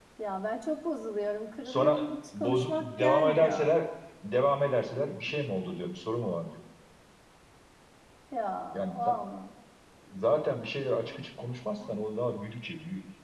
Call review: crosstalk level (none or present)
present